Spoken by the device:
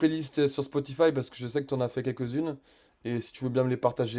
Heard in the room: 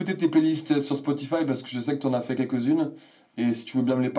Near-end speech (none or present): none